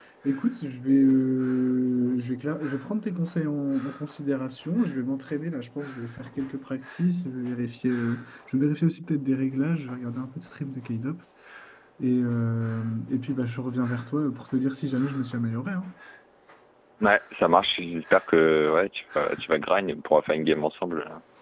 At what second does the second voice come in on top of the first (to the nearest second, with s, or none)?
none